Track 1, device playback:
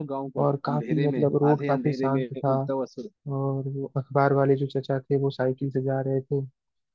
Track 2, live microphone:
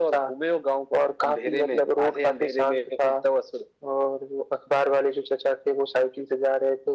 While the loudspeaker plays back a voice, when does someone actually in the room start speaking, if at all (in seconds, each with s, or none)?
none